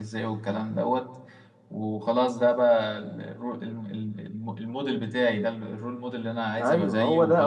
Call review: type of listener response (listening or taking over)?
taking over